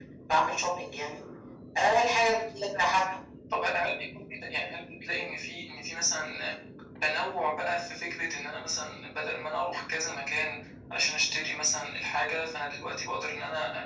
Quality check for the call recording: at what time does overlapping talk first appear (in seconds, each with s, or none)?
none